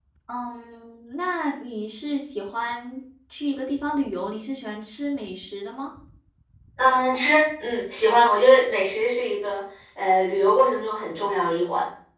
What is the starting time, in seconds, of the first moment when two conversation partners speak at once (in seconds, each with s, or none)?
none